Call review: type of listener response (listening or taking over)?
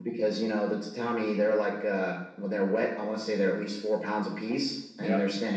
listening